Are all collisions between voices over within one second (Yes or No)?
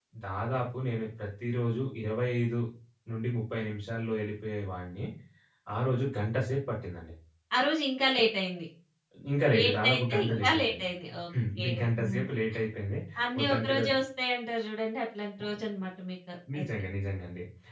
No